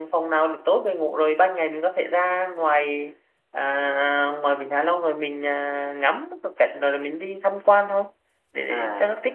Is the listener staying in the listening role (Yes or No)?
No